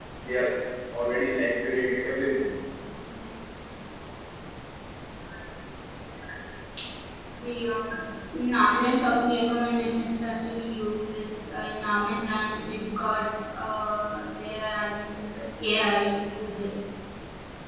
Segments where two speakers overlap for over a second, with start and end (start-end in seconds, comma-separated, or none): none